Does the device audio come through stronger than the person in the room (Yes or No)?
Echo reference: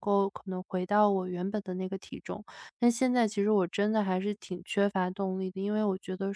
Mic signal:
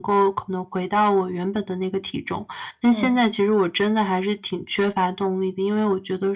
Yes